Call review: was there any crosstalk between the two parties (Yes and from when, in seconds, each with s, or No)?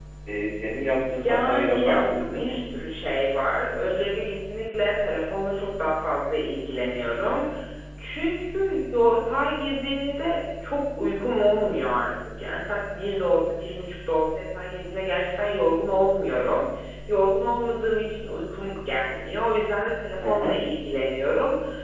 Yes, from 1.2 s